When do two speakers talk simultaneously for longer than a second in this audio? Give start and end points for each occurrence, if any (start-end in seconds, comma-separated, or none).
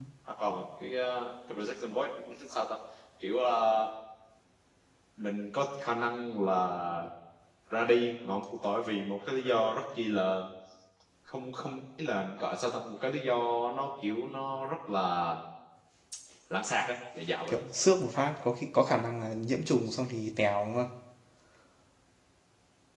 none